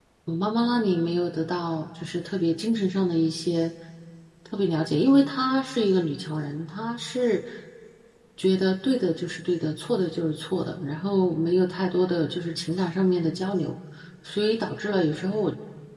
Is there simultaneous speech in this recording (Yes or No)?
No